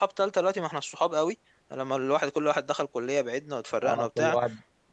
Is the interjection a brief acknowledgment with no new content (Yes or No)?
No